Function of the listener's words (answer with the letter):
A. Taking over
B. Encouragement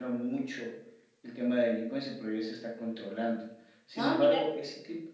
B